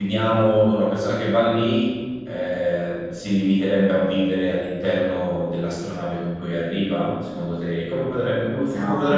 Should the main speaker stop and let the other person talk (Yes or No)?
Yes